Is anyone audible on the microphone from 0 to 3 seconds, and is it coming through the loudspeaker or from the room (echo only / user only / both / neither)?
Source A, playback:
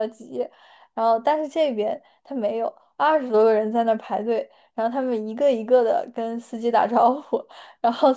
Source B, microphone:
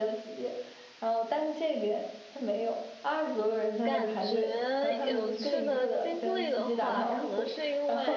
echo only